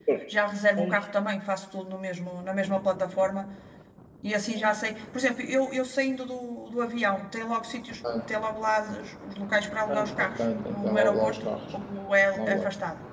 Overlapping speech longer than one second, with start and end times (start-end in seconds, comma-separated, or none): 9.9-11.7